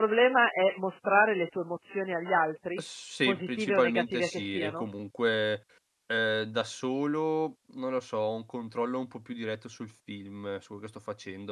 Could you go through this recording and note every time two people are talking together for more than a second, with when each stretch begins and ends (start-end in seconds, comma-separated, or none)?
3.2-4.8